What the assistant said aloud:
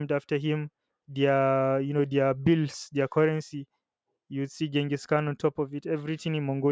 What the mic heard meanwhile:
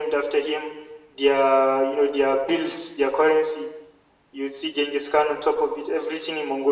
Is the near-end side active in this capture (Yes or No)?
No